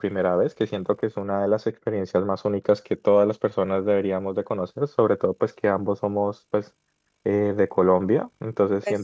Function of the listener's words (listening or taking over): listening